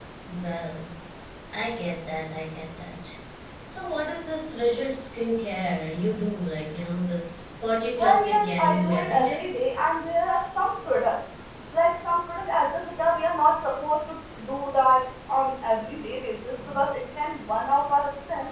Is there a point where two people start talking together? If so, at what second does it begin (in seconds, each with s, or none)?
8.0 s